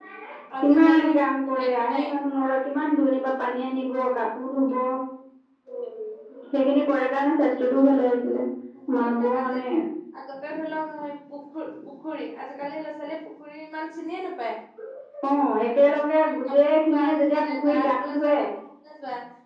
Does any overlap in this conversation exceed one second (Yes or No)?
Yes